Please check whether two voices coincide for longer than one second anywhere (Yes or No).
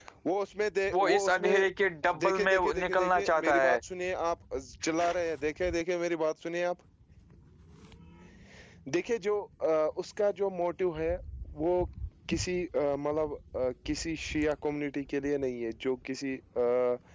Yes